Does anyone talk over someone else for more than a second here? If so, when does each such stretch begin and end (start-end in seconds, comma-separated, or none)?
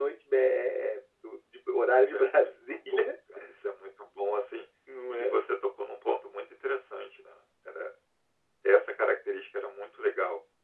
1.8-3.1